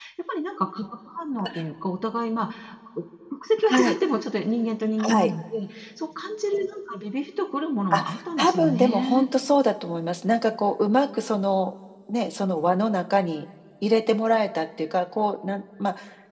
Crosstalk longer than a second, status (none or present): present